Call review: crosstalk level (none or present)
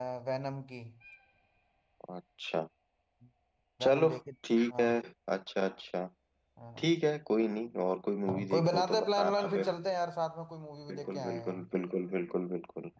present